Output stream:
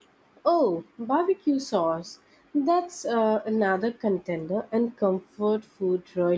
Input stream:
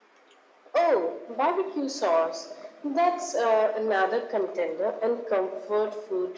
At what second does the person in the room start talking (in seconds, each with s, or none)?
none